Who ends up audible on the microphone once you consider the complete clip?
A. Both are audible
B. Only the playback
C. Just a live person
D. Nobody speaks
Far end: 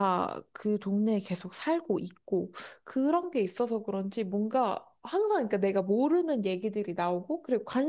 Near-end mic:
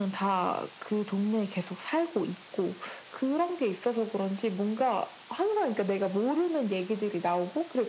B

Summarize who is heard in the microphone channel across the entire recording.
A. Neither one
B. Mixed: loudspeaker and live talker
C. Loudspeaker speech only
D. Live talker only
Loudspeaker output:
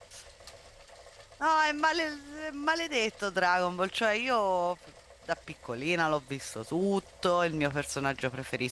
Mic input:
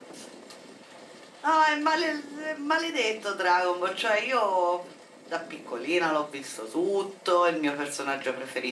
C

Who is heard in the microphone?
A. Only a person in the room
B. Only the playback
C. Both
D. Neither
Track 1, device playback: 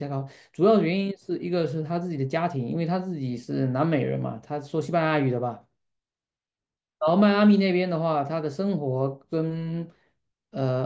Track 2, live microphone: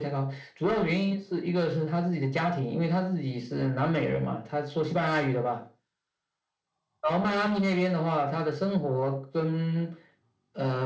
B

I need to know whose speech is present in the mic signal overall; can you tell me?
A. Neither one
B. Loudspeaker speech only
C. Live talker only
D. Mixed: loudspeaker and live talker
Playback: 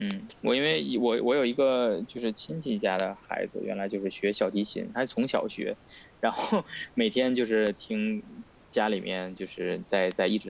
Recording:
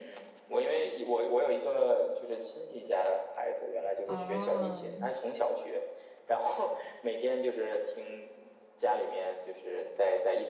D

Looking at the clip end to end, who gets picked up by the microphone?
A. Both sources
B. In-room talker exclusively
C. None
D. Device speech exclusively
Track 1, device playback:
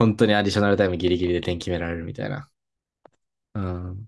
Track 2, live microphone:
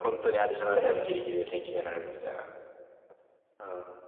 A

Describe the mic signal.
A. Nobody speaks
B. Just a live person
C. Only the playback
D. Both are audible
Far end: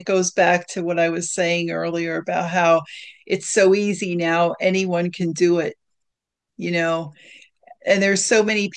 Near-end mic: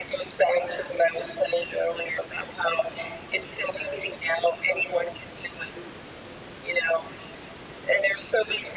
C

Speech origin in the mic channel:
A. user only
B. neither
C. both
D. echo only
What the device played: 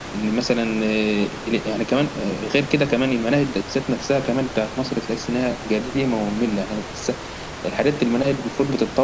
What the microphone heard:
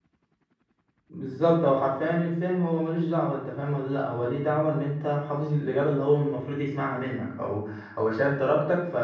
A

